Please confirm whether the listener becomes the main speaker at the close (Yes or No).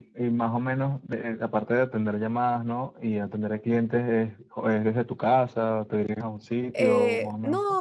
Yes